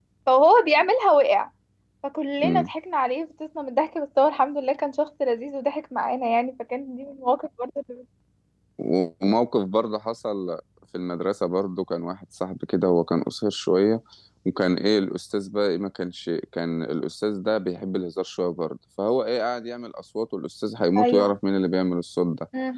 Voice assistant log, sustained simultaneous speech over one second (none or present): none